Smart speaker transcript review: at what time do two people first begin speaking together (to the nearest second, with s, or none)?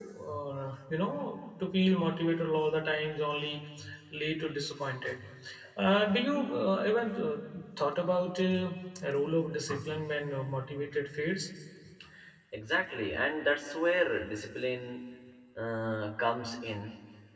none